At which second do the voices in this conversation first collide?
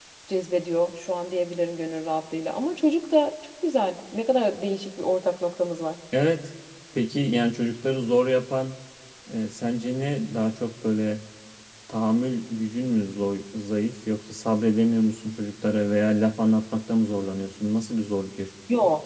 none

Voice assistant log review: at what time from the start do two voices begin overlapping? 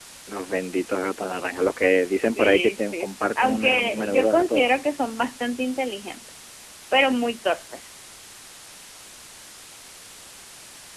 2.2 s

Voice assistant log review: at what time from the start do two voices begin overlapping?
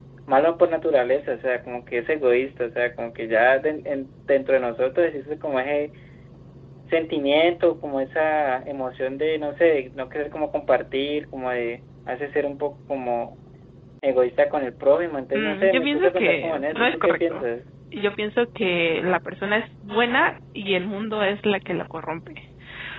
15.3 s

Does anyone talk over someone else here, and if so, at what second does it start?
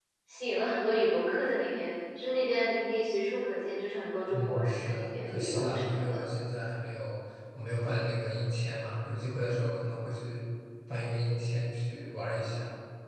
4.3 s

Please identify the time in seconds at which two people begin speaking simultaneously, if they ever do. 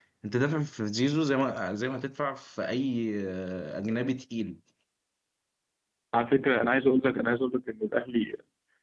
none

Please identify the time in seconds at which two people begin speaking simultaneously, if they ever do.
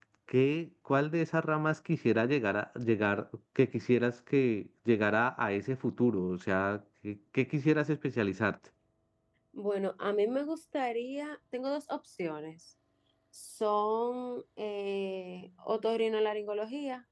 none

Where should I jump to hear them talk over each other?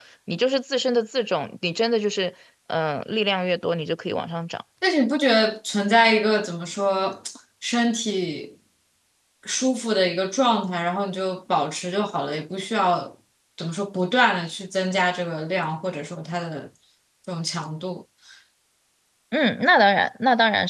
none

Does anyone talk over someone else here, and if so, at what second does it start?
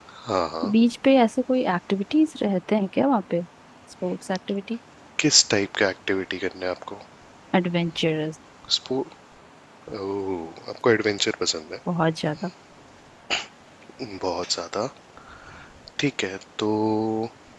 none

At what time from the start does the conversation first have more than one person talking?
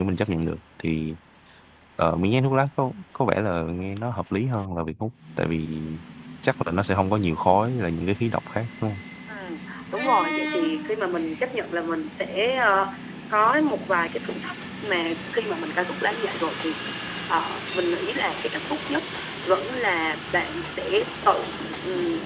none

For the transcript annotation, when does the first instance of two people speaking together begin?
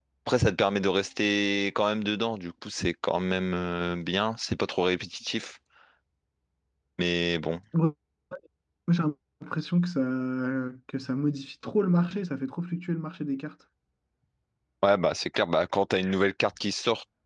none

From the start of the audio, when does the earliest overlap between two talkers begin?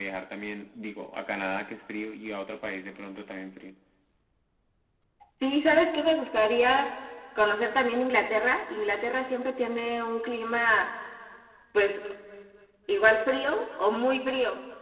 none

